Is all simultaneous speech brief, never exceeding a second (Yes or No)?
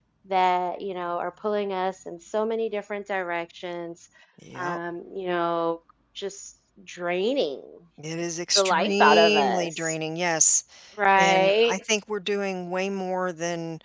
No